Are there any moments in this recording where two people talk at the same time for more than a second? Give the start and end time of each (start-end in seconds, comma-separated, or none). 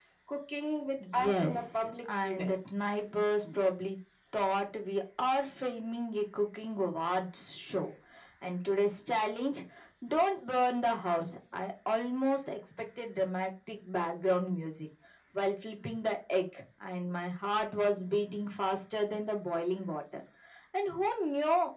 1.1-2.5